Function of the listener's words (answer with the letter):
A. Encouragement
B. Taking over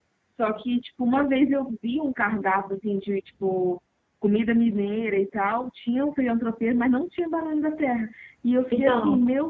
A